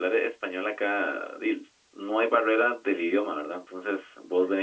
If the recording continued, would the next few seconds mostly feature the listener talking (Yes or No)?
No